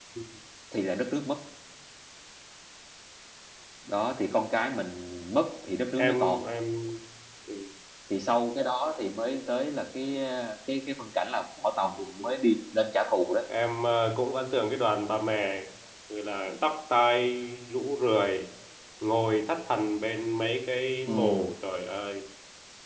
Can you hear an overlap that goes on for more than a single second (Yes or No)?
No